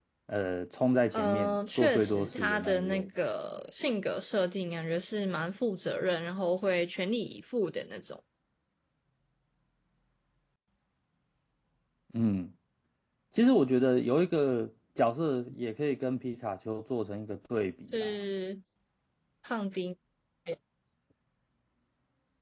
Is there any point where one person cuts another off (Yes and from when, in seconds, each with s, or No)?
Yes, from 1.1 s